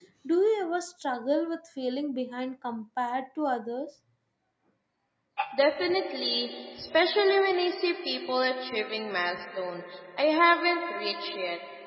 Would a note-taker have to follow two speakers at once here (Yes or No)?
No